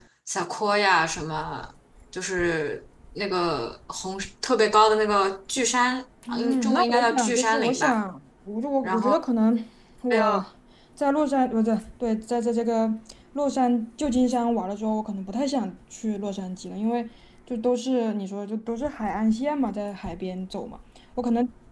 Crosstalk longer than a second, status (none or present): present